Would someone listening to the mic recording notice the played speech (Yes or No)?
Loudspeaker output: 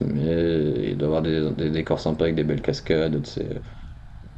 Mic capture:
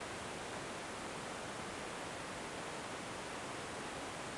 No